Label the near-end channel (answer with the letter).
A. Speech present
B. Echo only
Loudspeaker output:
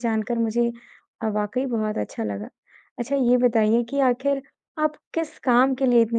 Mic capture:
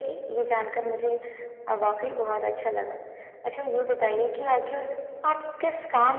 B